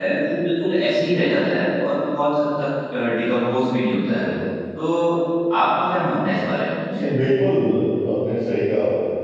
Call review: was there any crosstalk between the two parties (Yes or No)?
No